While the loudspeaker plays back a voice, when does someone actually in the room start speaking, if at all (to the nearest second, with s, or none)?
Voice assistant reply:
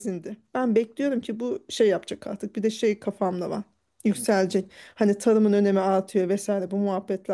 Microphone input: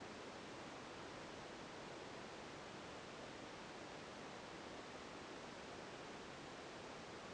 none